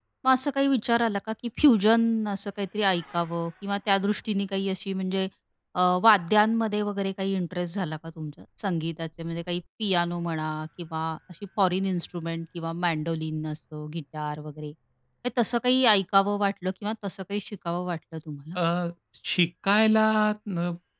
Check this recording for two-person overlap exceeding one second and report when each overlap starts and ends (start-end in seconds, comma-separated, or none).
none